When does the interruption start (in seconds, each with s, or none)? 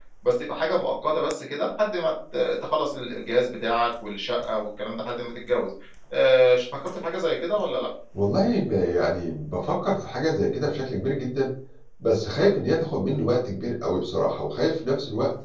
none